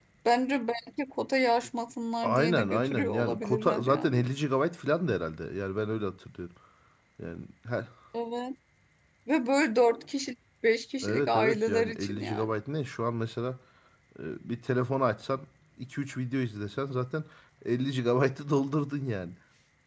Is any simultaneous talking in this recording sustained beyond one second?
Yes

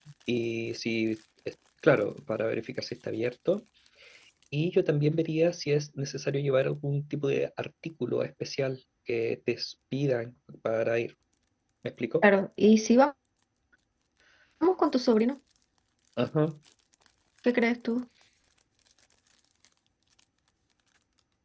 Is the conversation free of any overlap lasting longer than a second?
Yes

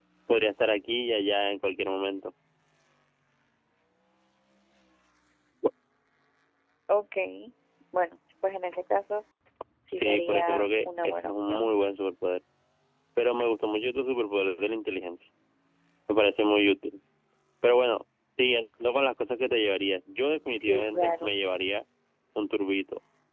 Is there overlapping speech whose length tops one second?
Yes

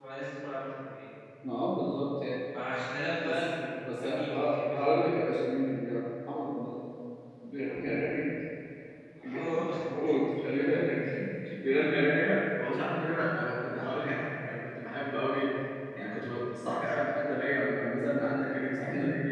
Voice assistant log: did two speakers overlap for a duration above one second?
Yes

